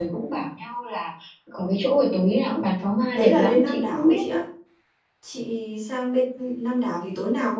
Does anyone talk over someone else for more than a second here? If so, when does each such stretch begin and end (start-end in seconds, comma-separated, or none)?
3.1-4.4